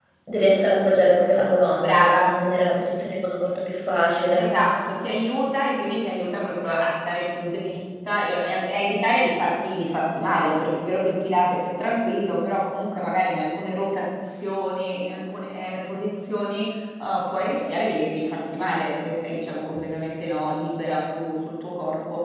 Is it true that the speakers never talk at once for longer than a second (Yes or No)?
Yes